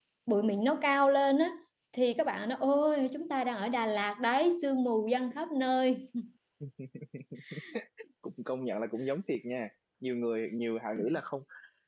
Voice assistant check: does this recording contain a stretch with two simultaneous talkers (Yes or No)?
No